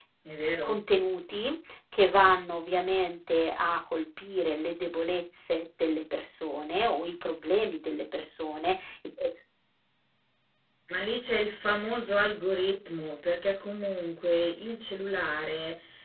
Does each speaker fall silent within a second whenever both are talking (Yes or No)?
Yes